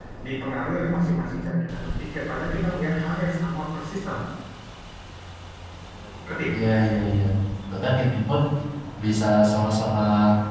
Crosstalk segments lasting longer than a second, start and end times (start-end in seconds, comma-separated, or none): none